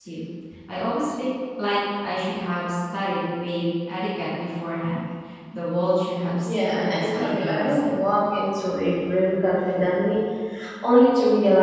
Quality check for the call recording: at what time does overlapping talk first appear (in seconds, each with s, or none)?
6.5 s